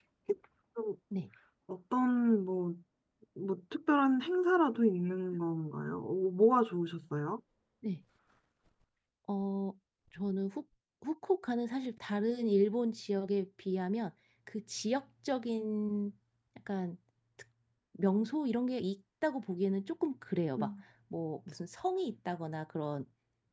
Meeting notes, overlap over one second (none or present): none